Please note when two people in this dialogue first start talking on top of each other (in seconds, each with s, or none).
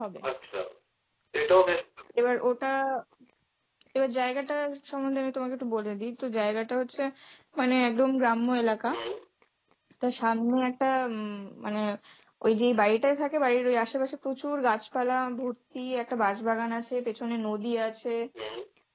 none